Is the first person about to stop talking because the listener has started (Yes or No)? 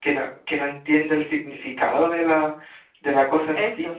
No